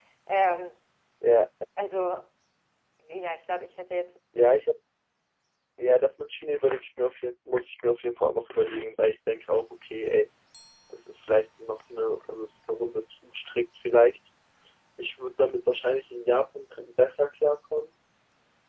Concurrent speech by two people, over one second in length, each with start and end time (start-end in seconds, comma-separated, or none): none